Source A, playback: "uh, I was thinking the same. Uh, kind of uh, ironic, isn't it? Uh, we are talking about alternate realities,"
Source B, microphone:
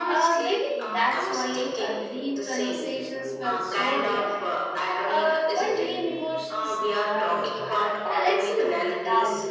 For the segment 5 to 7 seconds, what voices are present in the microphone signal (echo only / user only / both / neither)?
both